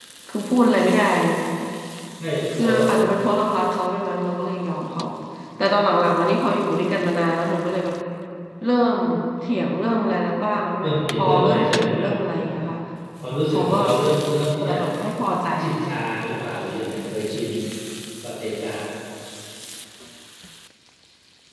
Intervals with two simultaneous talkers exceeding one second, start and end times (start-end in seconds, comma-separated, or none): 10.8-12.0